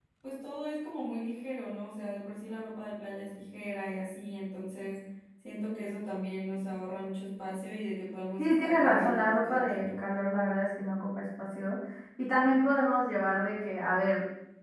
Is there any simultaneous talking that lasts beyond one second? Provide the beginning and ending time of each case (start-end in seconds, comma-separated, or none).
8.4-10.0